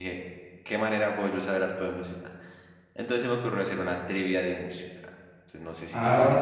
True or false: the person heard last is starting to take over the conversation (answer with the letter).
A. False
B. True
B